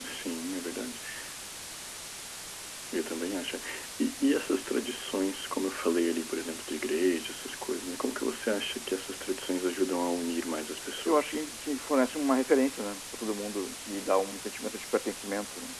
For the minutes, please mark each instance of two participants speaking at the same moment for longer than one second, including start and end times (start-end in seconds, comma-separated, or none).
none